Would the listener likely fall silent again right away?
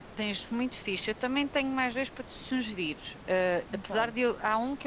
Yes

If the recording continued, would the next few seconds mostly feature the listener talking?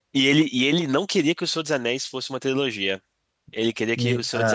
No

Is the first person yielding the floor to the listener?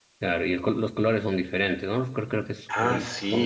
Yes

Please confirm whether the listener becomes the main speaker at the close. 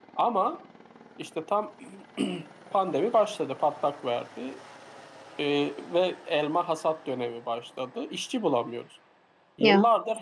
No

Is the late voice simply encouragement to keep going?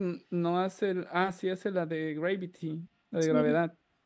No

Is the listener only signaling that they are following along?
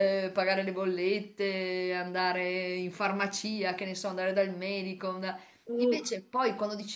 Yes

